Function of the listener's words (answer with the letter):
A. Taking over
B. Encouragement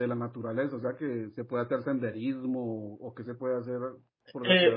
A